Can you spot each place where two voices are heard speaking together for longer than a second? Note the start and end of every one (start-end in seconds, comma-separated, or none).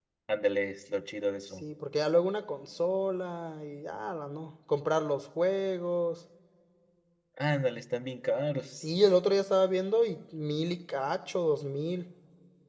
none